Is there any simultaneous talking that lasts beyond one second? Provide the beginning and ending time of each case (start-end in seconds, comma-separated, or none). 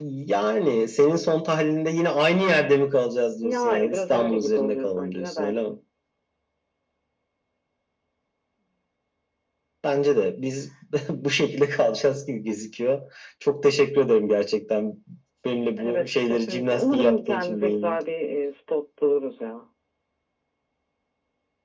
3.4-5.7, 15.8-18.0